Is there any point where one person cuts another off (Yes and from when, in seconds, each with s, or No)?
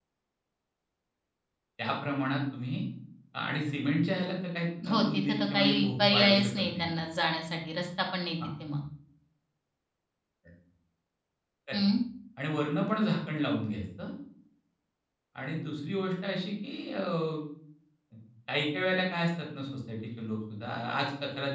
Yes, from 4.8 s